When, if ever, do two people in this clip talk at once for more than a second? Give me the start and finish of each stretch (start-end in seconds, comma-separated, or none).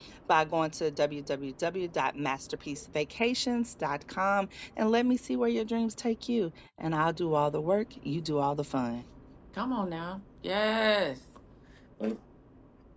none